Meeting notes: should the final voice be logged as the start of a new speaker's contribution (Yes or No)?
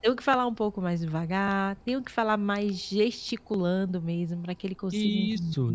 Yes